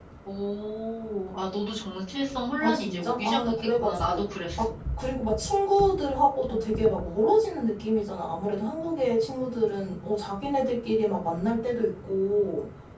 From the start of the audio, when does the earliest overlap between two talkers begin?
2.6 s

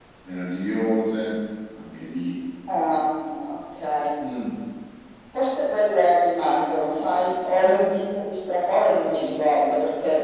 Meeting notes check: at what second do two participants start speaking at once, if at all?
none

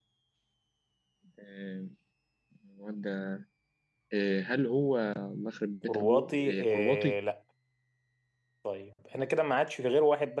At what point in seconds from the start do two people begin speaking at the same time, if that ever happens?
5.9 s

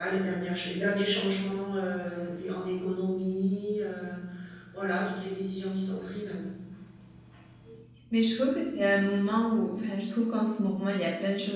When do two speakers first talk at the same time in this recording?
none

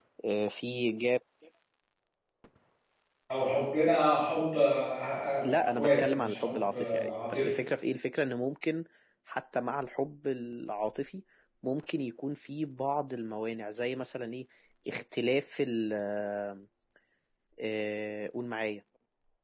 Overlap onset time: 5.4 s

